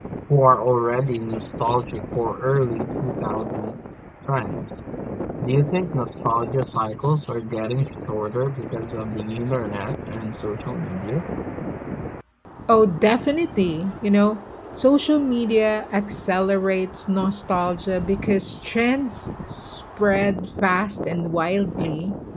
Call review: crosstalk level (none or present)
none